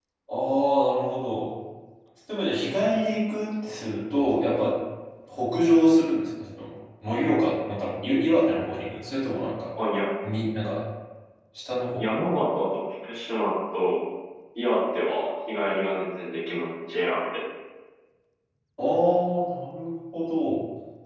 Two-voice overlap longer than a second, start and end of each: none

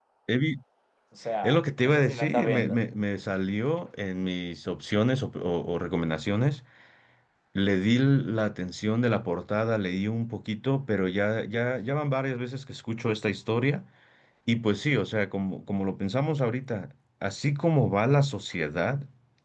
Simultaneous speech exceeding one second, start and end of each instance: 1.4-2.8

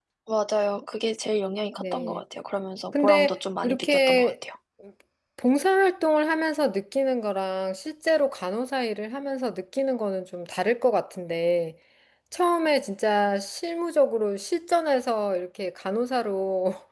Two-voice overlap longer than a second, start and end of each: 2.9-4.3

